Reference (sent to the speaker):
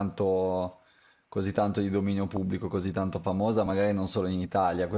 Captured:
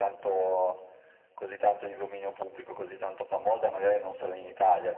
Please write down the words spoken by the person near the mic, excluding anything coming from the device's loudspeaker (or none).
none